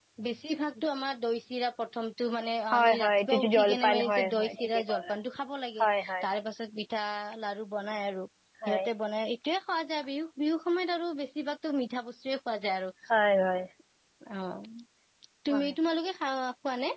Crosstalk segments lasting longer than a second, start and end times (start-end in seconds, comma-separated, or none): 2.7-5.1